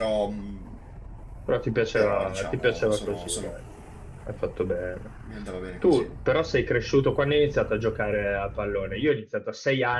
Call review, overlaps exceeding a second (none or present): present